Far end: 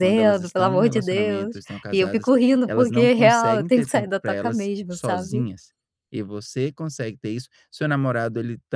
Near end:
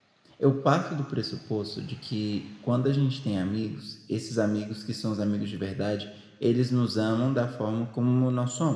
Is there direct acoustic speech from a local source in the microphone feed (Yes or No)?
Yes